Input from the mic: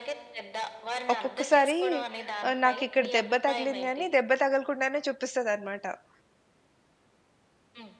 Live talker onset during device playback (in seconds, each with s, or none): 1.1 s